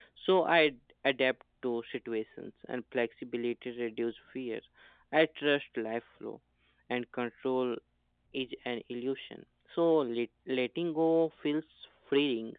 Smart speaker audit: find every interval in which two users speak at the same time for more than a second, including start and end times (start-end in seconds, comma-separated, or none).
none